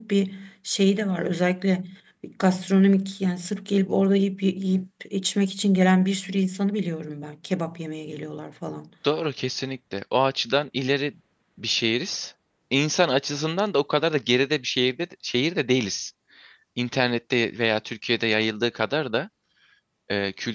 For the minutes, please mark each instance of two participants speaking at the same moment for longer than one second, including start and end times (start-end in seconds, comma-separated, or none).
none